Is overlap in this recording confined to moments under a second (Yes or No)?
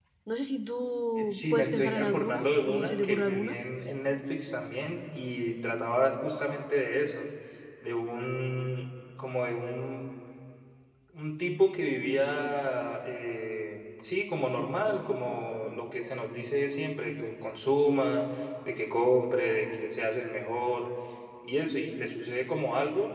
No